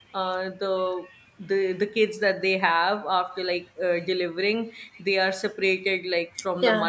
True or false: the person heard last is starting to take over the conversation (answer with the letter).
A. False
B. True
A